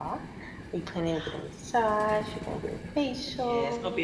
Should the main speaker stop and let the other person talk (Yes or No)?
Yes